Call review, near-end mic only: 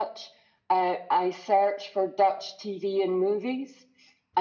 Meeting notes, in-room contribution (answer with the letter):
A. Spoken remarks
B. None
B